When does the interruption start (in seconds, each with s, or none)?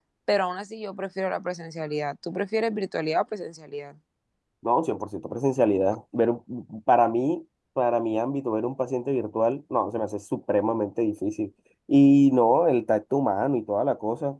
none